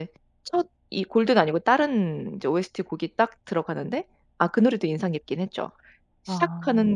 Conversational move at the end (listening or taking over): listening